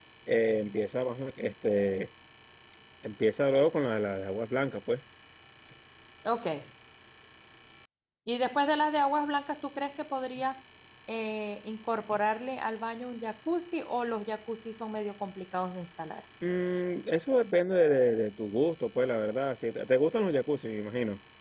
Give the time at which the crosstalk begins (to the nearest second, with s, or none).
none